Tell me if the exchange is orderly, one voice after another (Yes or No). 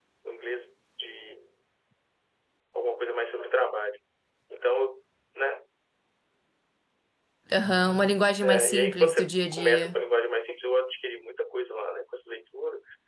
No